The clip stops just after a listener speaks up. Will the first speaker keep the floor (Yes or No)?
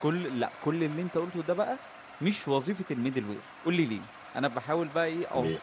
Yes